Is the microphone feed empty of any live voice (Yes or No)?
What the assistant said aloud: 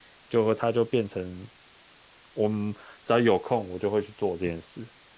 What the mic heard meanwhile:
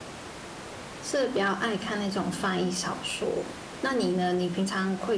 No